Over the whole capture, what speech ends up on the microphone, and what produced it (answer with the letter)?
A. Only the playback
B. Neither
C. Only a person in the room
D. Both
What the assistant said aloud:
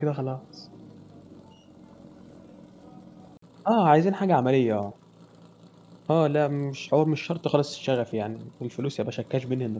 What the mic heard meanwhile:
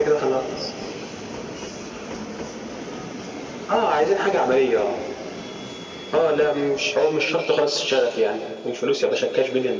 A